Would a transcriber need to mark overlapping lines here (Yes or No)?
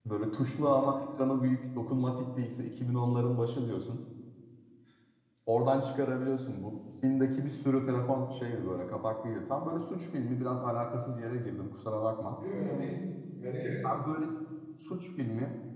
No